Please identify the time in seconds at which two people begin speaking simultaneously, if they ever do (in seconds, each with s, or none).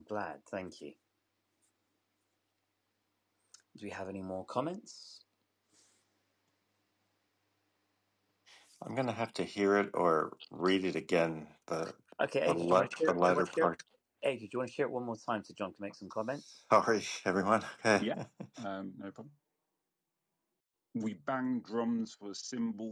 12.5 s